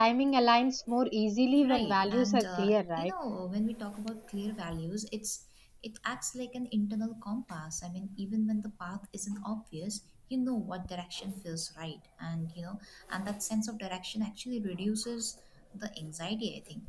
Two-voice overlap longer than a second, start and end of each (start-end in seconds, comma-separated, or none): 1.6-3.1